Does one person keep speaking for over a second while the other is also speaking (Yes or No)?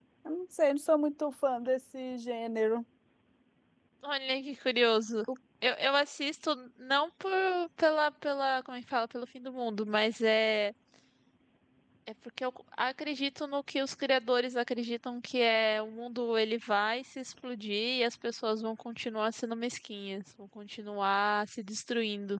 No